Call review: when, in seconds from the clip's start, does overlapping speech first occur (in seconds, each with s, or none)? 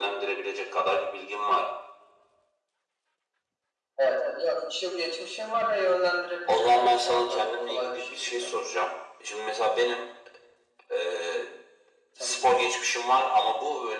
6.5 s